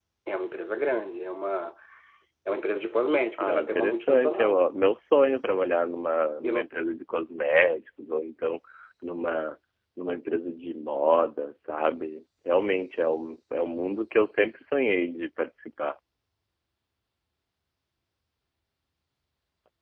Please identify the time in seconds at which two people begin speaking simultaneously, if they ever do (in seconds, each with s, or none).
3.4 s